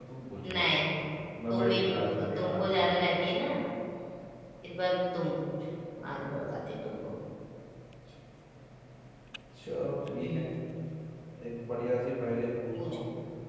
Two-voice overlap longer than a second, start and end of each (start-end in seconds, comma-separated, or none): 1.5-3.0